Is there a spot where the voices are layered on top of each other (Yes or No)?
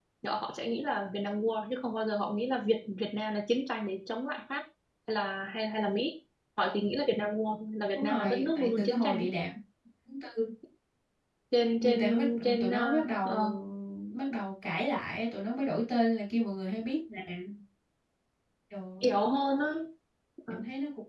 Yes